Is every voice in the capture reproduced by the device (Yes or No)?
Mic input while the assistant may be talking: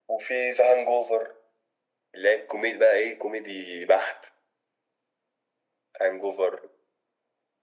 Yes